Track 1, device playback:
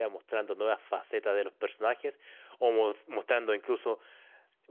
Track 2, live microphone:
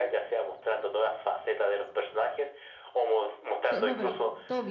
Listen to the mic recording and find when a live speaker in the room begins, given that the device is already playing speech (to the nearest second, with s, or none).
4 s